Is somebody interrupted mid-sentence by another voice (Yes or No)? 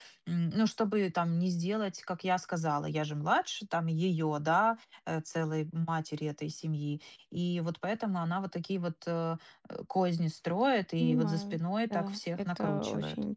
Yes